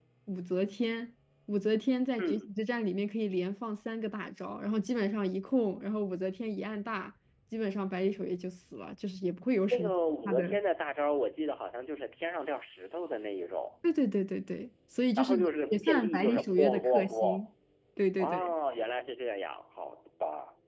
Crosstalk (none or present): present